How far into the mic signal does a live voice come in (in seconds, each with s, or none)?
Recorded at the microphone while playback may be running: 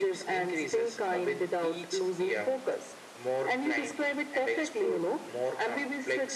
none